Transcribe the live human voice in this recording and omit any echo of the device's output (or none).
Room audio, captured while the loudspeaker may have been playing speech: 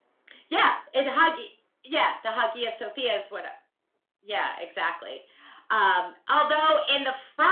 none